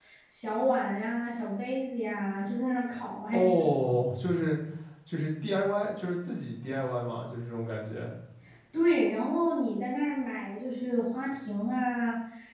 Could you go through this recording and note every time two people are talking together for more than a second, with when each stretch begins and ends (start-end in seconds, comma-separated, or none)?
none